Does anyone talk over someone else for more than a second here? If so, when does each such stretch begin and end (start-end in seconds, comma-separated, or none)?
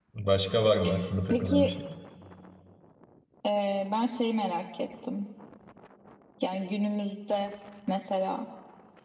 none